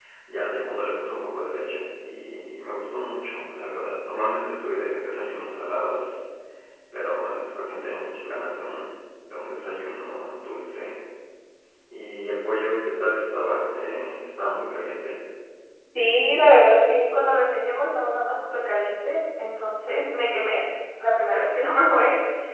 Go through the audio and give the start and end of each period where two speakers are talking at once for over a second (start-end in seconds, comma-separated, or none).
none